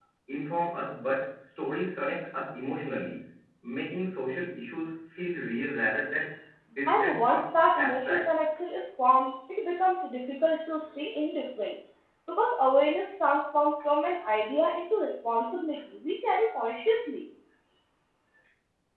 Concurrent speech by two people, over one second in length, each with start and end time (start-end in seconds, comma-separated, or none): 6.9-8.3